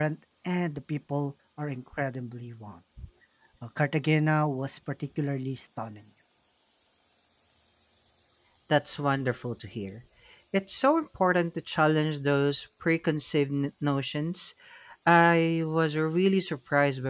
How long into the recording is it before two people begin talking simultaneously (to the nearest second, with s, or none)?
none